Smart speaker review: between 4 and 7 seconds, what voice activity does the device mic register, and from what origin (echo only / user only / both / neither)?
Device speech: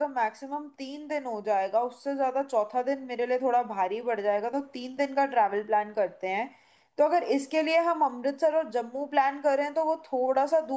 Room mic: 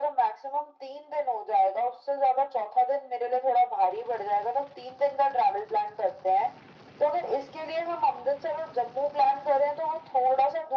echo only